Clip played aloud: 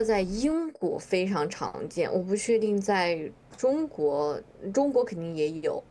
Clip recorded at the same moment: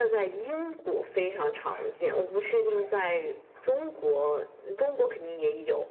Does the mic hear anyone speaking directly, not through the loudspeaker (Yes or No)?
Yes